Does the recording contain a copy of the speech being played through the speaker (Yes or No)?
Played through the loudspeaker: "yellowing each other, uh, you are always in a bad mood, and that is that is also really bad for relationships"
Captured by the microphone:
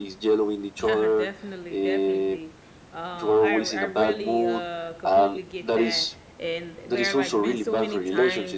Yes